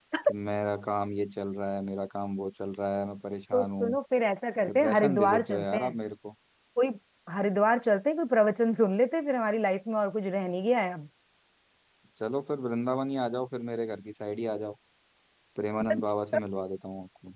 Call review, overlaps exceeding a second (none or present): present